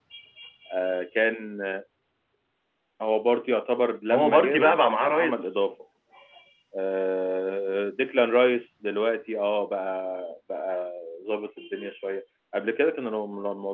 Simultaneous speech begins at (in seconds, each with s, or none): 4.1 s